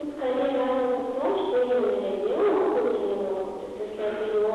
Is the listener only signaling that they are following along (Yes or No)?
Yes